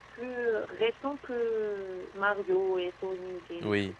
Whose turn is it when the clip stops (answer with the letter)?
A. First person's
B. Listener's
B